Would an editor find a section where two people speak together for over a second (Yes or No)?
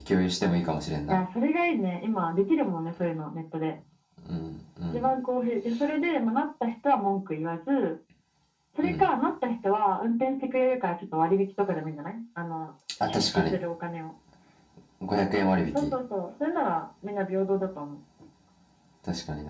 No